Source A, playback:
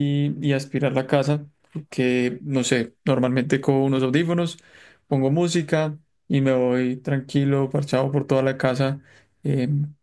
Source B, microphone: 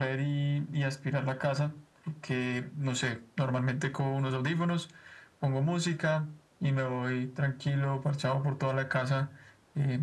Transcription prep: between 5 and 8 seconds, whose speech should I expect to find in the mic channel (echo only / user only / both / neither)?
echo only